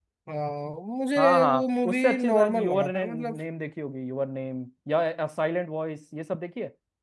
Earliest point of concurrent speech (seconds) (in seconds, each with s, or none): 1.2 s